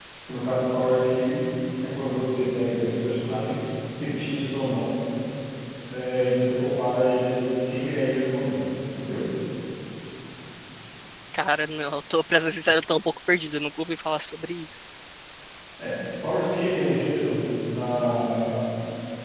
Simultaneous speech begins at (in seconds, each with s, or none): none